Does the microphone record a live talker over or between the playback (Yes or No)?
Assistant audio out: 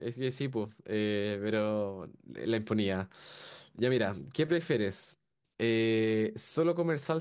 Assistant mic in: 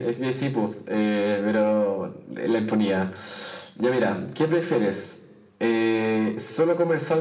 No